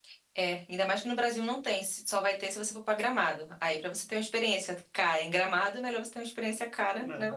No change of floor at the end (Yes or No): No